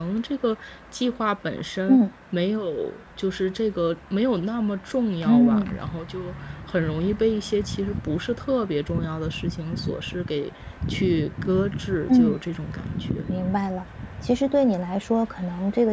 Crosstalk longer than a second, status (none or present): none